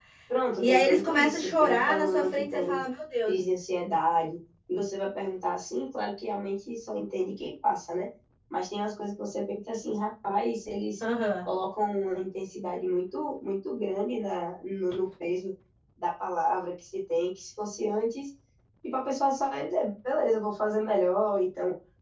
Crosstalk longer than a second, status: present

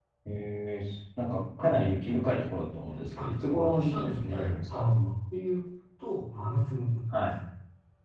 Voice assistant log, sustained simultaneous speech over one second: present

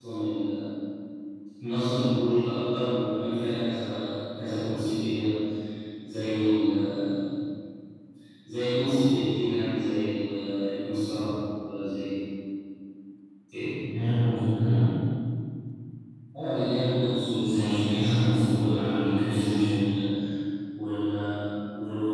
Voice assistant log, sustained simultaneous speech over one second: present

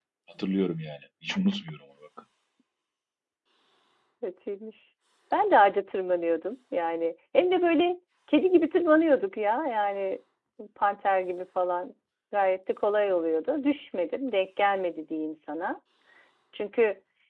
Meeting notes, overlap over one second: none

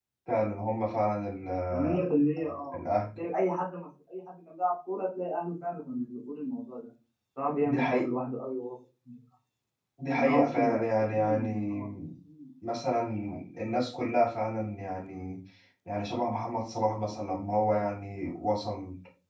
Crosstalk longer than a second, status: present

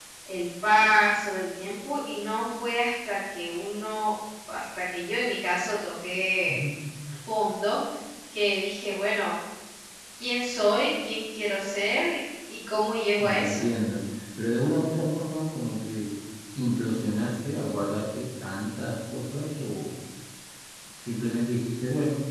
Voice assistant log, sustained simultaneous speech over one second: none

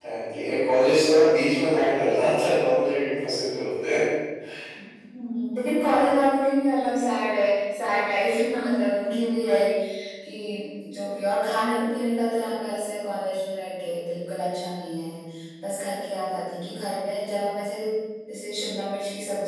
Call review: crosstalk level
none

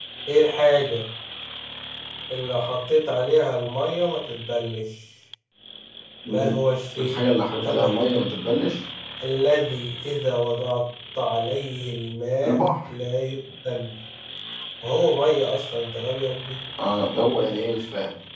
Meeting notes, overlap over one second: none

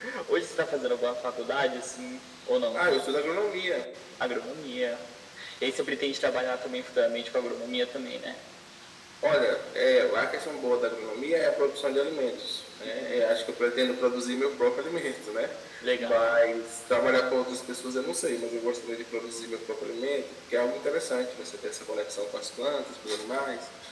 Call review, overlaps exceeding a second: none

